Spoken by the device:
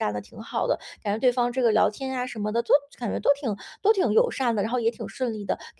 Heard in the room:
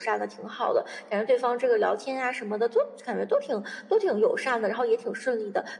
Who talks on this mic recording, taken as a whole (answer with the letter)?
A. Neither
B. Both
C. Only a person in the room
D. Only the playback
D